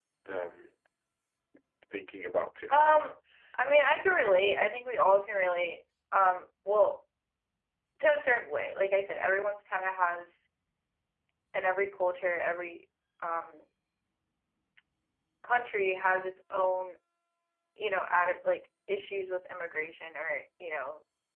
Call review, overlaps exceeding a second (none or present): none